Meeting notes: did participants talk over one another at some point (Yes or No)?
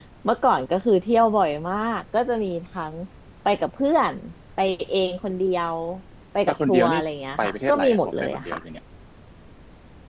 Yes